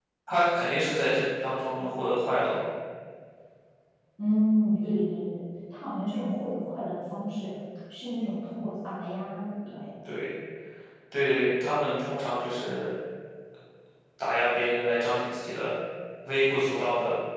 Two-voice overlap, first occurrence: none

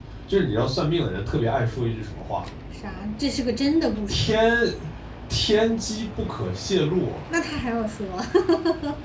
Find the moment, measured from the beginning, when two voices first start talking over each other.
none

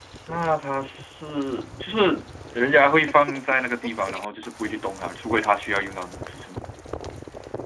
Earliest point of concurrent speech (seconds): none

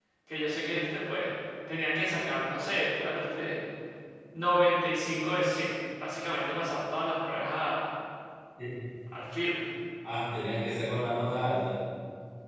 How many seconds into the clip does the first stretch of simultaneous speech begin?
none

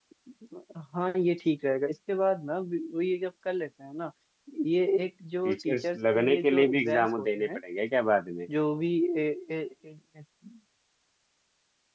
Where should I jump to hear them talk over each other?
5.4 s

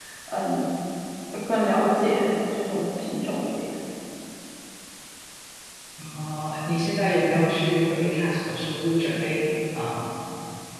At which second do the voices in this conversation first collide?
none

